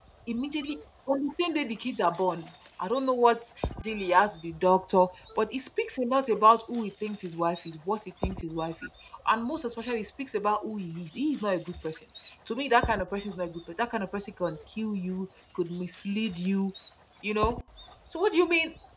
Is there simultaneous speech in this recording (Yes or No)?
No